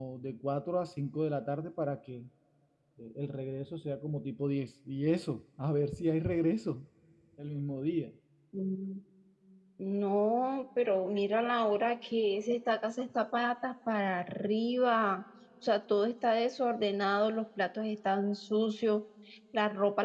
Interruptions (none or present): none